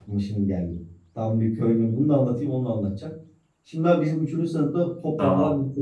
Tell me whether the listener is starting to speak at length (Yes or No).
No